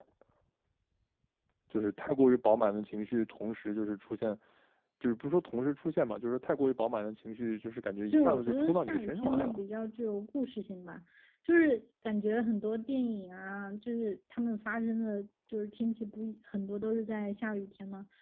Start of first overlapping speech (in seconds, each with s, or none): 8.1 s